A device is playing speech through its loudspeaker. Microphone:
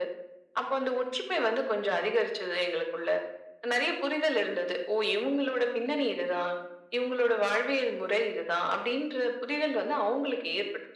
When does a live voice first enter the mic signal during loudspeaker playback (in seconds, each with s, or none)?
none